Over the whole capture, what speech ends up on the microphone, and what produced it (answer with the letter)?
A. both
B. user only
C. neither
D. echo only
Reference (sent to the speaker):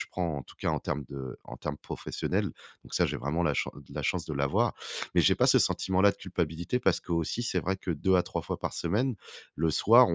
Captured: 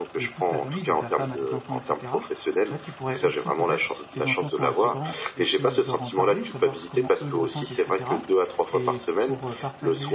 A